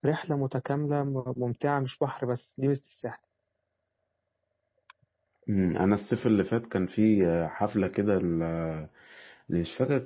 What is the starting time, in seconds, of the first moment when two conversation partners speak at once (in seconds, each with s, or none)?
none